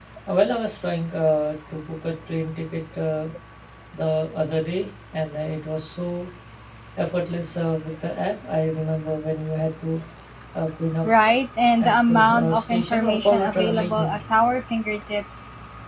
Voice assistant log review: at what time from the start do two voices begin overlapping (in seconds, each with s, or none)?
11.8 s